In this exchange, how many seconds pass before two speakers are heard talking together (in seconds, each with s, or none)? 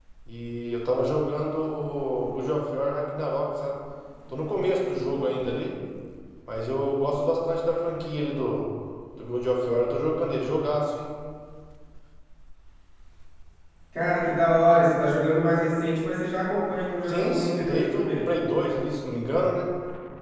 17.1 s